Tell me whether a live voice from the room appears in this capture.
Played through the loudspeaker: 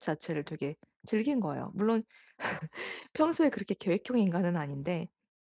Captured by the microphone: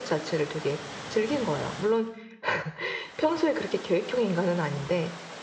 No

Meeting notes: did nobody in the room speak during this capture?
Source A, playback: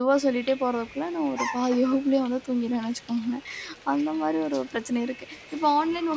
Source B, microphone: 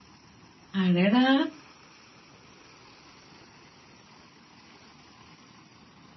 No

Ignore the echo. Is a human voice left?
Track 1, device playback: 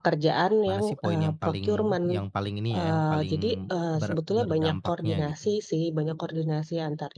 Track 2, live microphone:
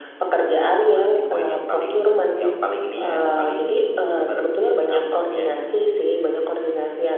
Yes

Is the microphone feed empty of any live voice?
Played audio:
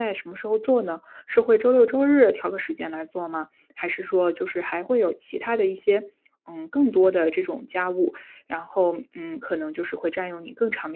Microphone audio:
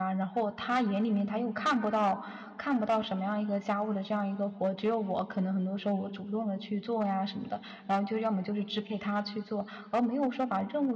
No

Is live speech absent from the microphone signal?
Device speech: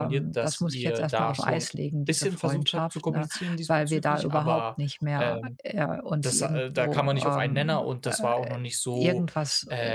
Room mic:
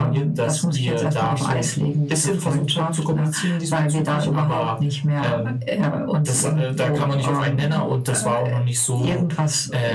Yes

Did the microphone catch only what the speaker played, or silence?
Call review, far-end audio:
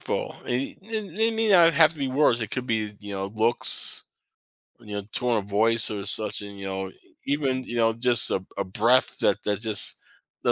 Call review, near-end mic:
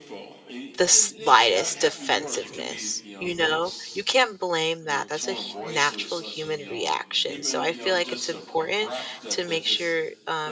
No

